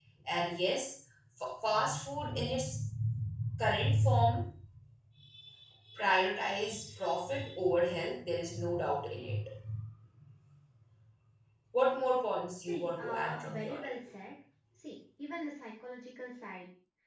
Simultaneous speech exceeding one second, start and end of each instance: 12.7-13.9

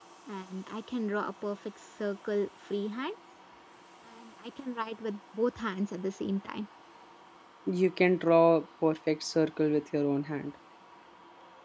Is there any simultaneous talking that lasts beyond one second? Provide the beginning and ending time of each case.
none

